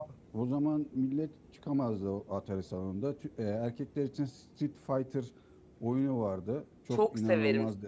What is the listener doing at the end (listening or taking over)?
taking over